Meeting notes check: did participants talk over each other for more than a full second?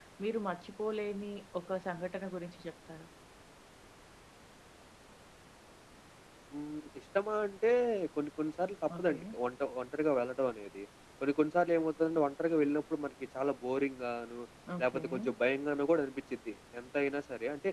No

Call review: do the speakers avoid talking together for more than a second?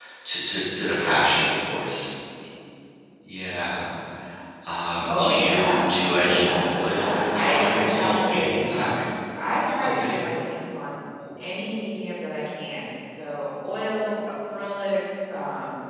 No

